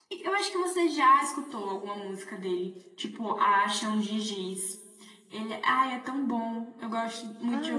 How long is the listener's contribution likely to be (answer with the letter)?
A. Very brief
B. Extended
B